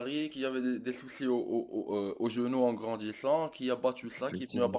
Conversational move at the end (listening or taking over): listening